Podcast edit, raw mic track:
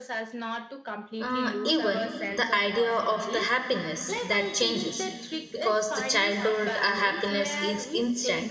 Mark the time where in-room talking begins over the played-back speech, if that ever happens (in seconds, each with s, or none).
1.2 s